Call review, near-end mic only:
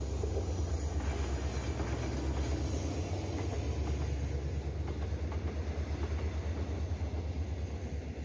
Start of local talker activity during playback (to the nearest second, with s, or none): none